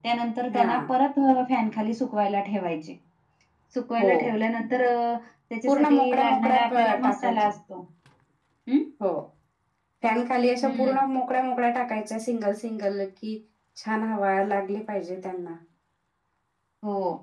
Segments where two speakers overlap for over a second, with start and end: 5.7-7.5

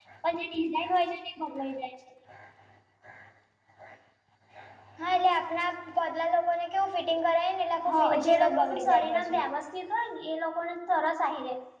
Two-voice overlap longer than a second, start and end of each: 7.9-9.4

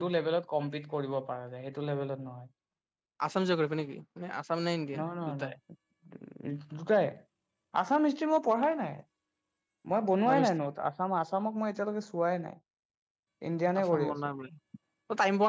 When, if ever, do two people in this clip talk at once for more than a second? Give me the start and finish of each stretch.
none

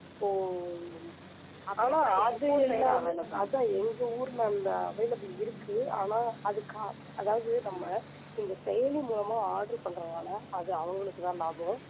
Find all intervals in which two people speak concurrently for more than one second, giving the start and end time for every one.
1.8-3.5

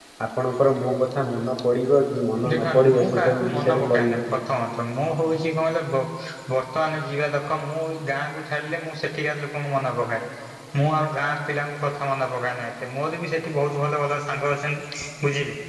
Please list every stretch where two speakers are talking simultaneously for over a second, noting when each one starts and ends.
2.5-4.4

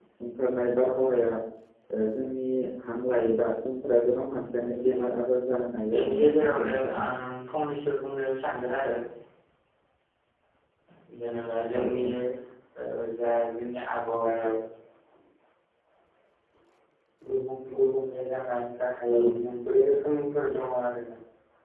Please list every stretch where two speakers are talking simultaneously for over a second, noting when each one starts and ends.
5.9-7.1

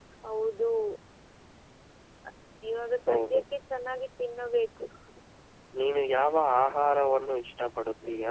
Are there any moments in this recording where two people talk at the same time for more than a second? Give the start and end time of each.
none

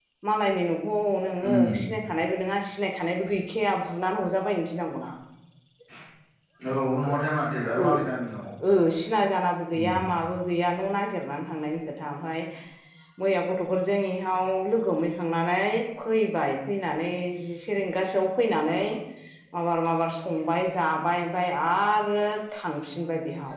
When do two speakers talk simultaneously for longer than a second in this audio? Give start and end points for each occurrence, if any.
none

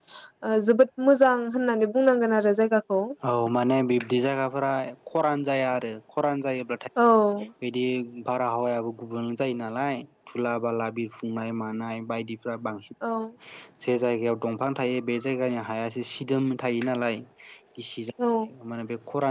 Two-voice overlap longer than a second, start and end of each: none

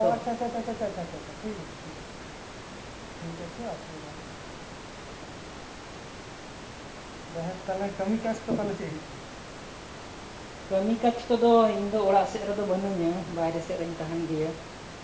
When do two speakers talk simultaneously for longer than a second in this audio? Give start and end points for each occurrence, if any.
none

